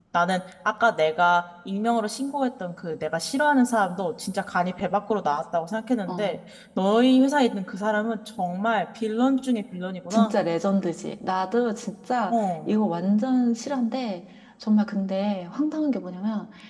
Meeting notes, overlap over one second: none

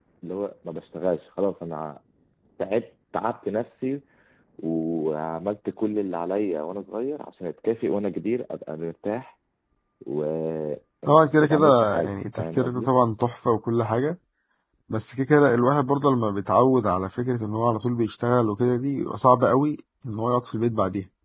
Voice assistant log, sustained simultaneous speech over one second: present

